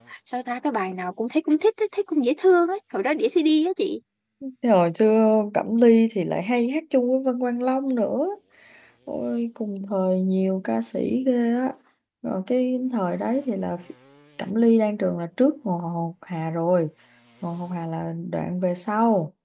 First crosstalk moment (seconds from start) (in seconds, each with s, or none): none